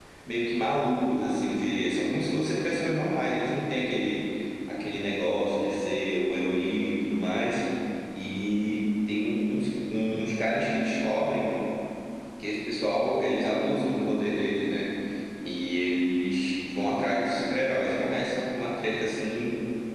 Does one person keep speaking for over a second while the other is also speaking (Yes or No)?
No